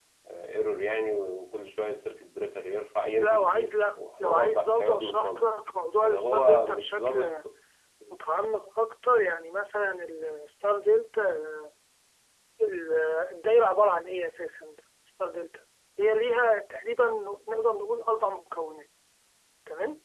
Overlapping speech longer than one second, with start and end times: 3.2-5.4, 6.0-7.3

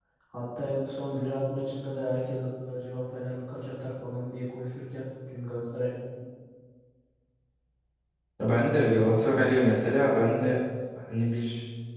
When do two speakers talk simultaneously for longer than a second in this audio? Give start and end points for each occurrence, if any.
none

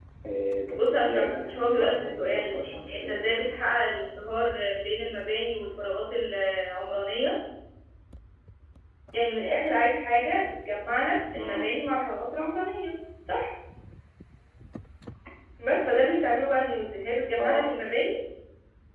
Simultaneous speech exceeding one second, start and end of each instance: 0.8-2.6

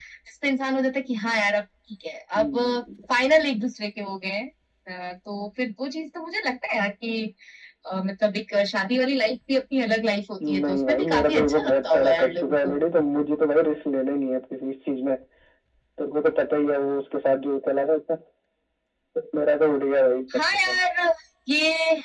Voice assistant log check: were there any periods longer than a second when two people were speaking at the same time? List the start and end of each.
10.5-12.7

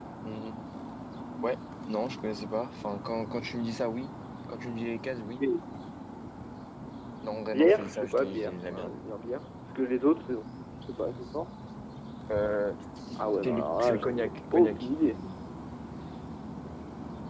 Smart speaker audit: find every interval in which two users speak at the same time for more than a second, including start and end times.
7.5-8.9, 13.4-14.9

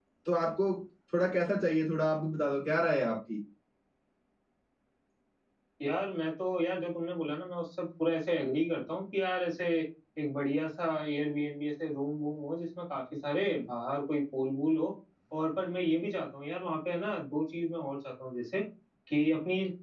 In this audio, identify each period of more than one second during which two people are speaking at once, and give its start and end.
none

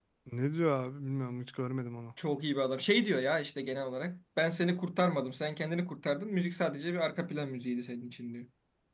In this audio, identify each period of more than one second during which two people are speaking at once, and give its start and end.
none

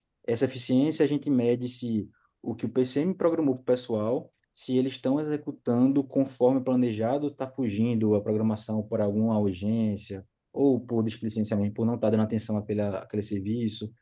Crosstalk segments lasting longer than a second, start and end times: none

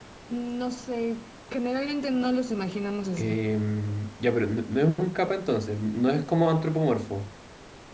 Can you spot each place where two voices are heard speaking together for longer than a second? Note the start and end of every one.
none

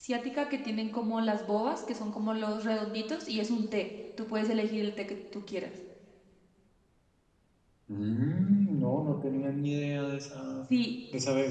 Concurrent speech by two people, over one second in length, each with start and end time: none

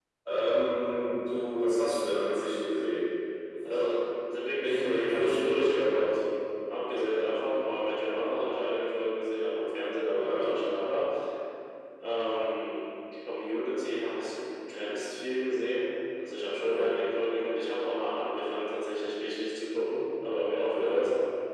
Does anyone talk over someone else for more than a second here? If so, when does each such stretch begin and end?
4.6-6.1

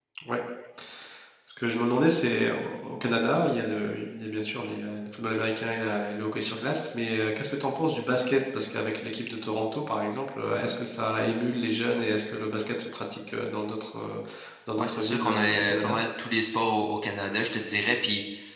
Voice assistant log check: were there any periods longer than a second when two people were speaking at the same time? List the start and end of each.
14.8-16.0

